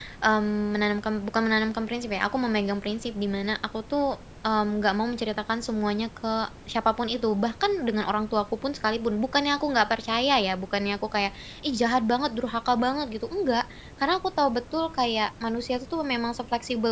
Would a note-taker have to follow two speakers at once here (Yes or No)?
No